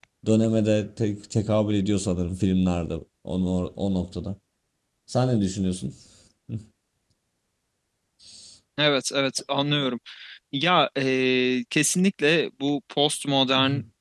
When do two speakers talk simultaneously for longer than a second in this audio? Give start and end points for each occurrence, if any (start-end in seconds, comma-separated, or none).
none